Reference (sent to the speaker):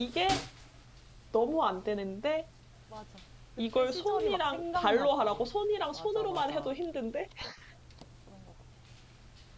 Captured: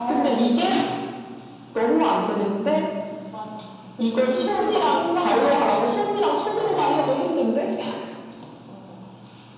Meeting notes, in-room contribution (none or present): none